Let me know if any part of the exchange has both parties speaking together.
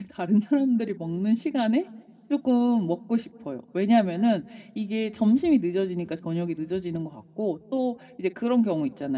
No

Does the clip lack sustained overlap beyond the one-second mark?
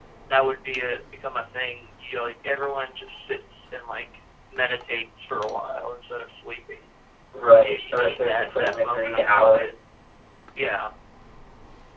No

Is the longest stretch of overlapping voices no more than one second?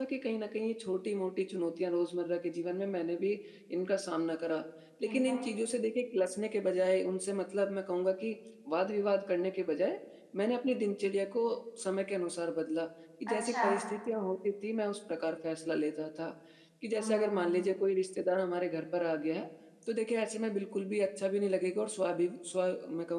Yes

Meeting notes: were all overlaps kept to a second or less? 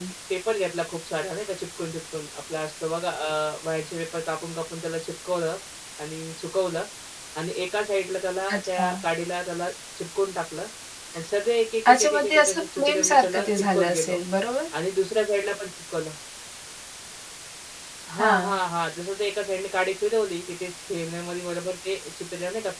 No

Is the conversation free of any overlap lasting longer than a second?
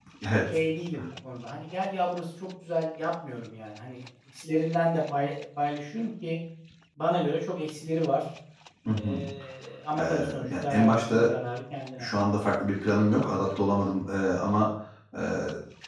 No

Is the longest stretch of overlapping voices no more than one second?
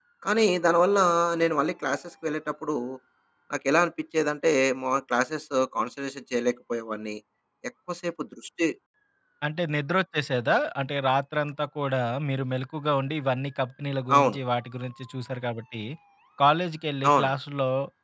Yes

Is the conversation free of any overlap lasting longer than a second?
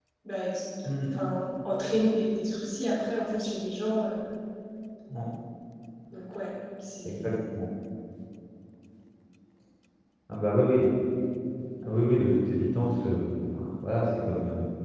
Yes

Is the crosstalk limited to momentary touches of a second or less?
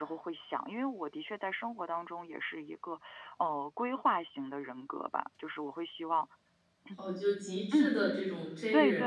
Yes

